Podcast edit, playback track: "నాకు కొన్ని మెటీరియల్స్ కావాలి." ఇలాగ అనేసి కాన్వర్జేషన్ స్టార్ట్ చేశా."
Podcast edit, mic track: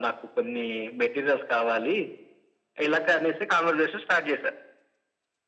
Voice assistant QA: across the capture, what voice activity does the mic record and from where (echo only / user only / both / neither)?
echo only